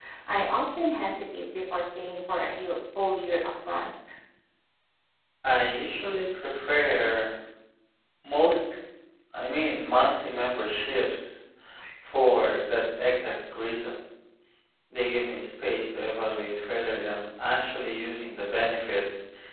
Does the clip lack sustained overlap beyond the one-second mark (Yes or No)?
Yes